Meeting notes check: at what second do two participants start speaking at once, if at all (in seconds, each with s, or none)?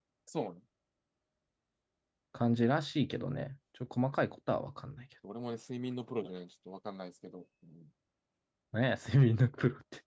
none